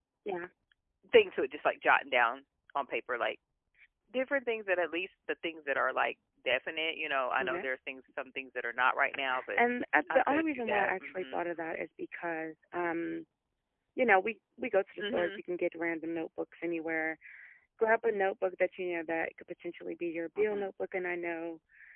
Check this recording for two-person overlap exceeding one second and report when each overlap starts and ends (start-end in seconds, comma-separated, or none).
10.1-11.4